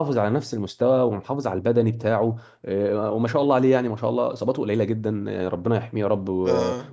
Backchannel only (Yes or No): Yes